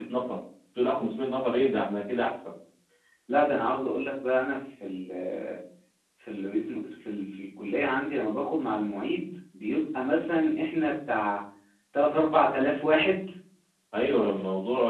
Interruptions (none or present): none